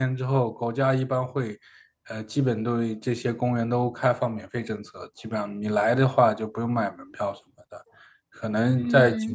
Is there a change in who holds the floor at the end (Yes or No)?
No